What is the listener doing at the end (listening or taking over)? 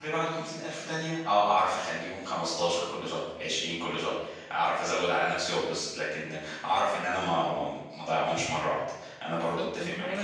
taking over